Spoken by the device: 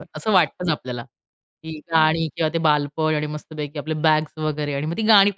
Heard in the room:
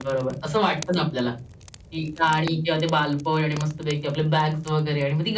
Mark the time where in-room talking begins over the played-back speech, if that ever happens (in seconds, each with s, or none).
none